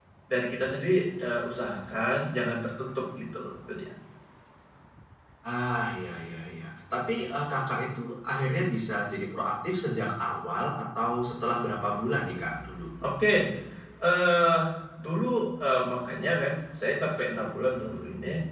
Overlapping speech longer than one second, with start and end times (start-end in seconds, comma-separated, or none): none